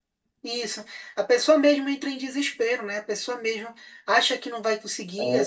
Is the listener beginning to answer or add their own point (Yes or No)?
No